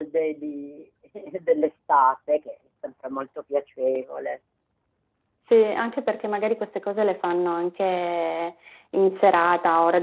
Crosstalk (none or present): none